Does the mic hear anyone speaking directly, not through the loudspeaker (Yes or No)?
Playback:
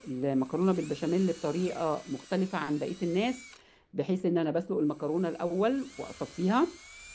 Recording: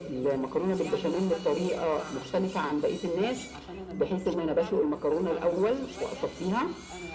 Yes